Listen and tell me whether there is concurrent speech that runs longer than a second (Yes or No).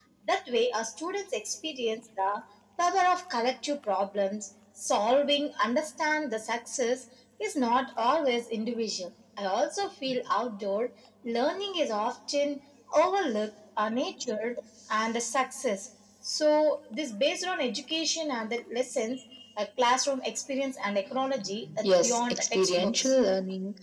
Yes